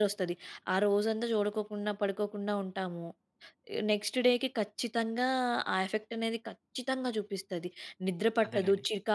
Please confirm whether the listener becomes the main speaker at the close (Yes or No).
No